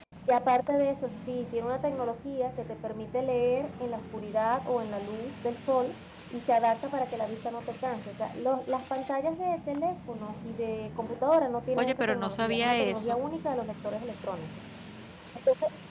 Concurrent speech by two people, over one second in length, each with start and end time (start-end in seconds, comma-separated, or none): 11.8-13.2